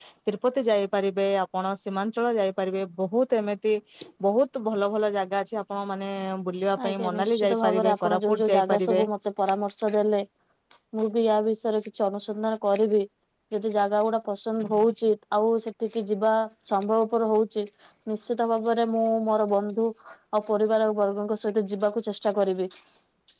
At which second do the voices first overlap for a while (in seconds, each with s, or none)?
6.9 s